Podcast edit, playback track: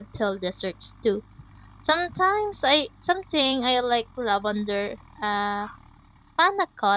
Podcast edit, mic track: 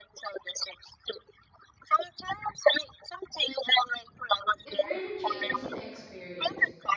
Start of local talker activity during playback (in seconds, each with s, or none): 4.6 s